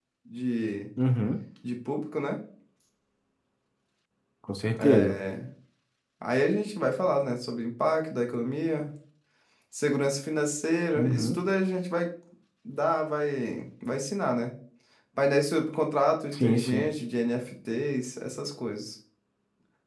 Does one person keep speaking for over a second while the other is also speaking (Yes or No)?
No